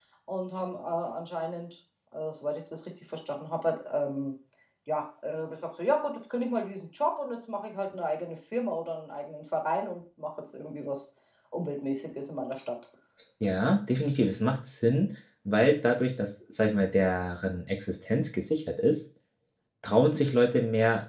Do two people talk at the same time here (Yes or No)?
No